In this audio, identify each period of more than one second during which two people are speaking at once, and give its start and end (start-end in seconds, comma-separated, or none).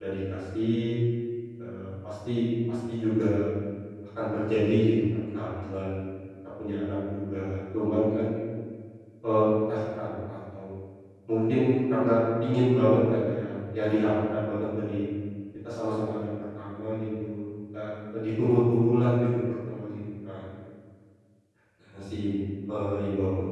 none